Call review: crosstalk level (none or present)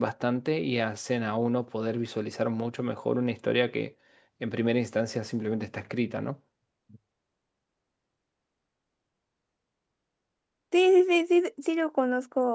none